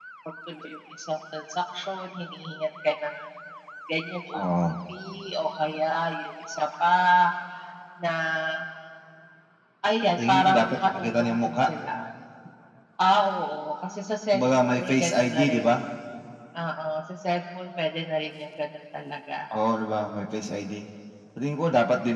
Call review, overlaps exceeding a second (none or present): present